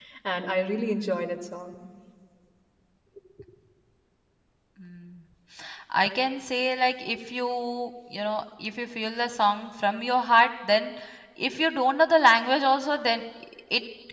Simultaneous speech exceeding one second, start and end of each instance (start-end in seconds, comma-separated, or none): none